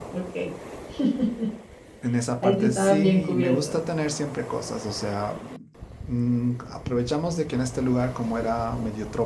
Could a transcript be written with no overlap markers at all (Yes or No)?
No